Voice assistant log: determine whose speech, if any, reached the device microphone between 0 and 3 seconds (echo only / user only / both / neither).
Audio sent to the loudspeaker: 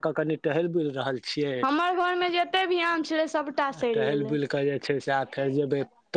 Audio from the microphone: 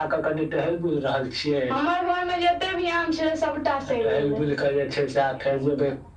echo only